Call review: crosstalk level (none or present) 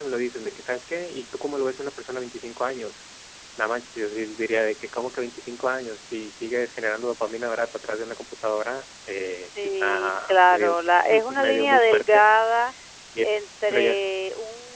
present